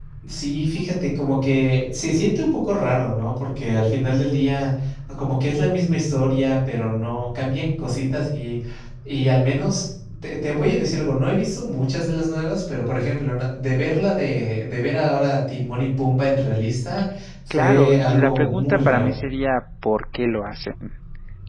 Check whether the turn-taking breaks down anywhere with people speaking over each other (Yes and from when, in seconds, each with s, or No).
Yes, from 17.5 s